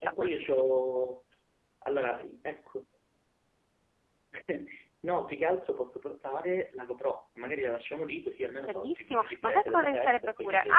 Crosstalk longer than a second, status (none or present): present